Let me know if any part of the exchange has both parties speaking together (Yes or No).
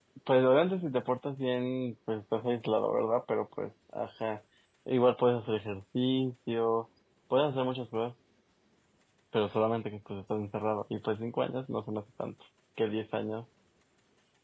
No